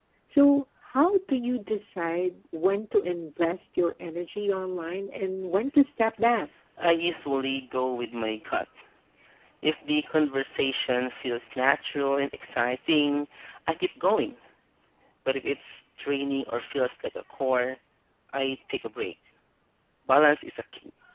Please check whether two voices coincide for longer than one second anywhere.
No

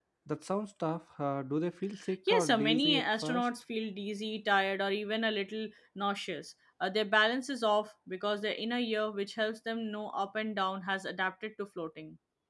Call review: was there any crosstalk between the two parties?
Yes, from 2.3 s

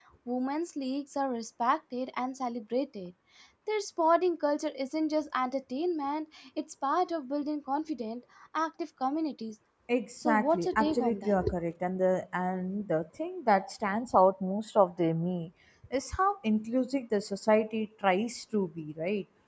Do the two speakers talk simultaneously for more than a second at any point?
Yes, from 10.2 s

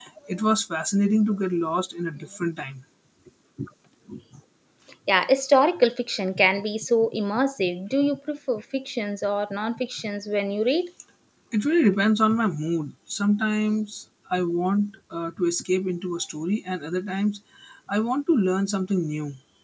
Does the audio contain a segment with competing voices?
No

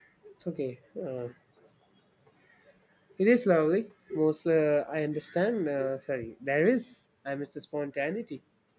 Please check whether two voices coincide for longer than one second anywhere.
No

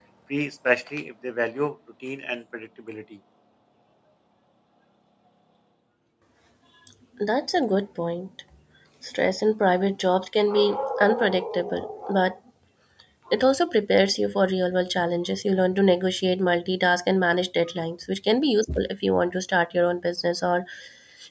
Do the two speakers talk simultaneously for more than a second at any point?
No

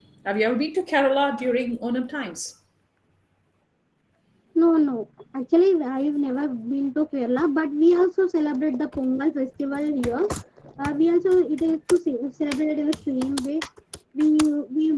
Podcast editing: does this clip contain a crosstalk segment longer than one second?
No

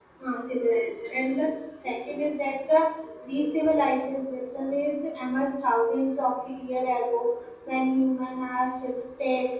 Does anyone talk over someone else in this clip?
No

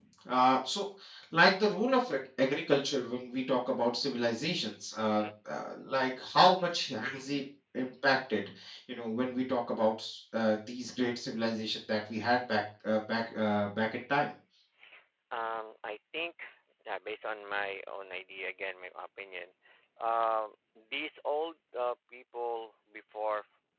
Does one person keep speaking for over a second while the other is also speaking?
No

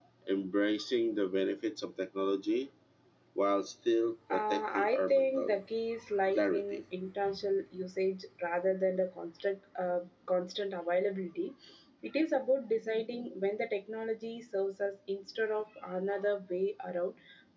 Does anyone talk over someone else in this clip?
Yes, from 4.3 s

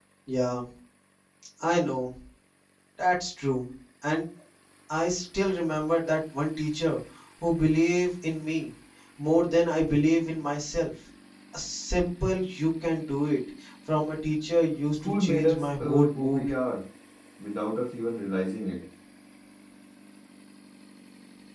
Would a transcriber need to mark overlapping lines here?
Yes, from 15.0 s

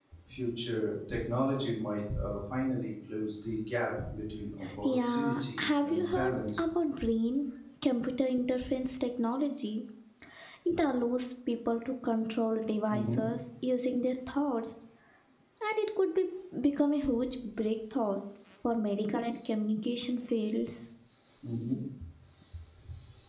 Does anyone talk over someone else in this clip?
Yes, from 4.8 s

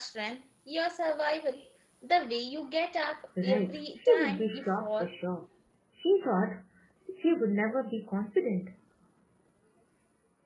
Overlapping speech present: Yes, from 3.4 s

